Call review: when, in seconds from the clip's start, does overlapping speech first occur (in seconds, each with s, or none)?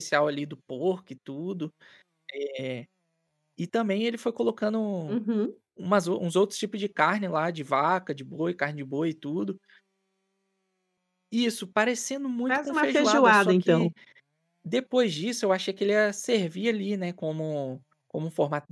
12.5 s